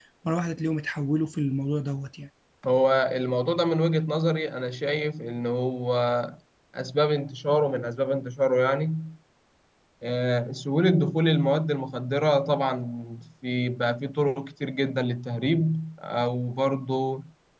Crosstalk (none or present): none